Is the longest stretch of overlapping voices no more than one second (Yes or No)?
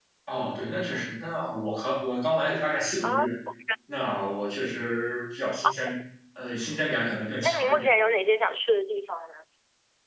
Yes